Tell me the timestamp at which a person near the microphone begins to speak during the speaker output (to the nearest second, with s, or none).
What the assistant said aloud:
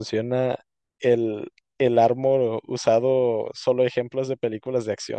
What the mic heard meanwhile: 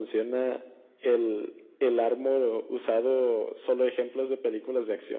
none